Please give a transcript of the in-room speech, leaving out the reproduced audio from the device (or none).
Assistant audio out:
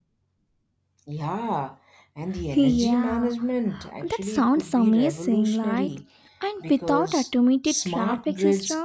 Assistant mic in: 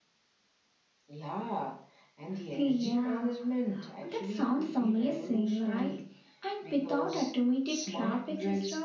none